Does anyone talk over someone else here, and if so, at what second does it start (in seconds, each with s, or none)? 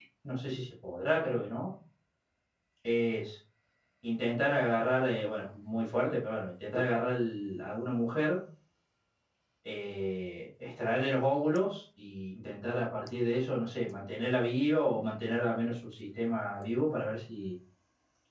none